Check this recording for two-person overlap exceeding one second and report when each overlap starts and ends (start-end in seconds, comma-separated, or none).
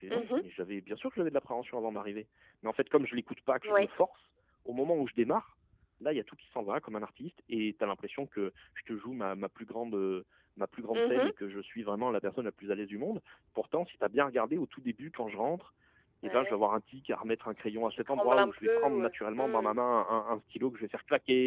17.9-19.8